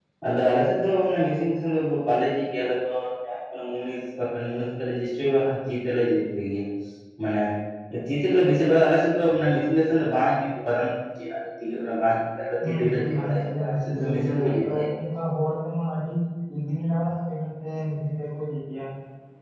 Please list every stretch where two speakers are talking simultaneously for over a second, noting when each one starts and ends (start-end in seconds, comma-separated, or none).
12.6-14.8